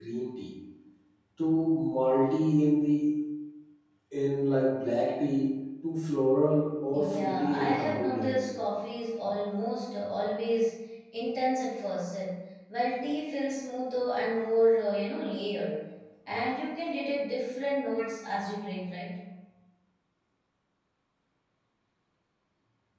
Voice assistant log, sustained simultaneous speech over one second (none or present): present